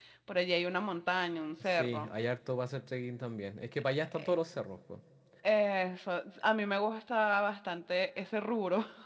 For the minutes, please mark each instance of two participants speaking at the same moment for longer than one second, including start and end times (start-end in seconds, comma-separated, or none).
none